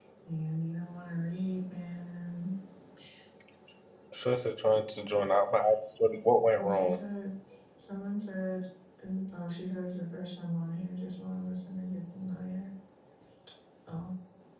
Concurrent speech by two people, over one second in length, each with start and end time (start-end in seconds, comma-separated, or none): none